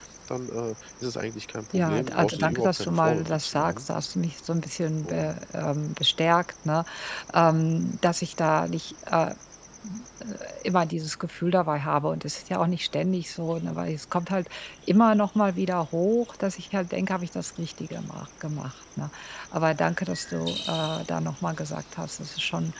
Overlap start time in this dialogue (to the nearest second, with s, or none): 2 s